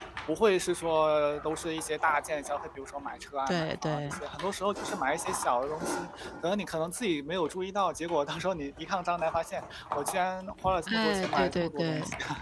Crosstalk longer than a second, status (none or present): present